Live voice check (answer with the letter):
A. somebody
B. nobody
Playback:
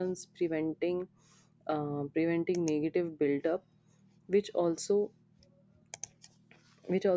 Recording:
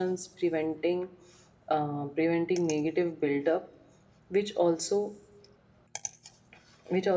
B